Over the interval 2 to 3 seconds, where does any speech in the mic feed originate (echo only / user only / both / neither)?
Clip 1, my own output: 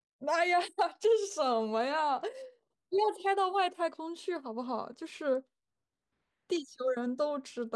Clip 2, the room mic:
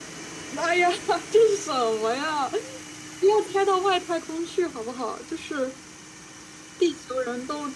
echo only